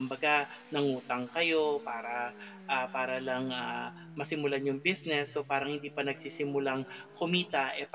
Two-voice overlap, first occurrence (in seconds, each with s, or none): none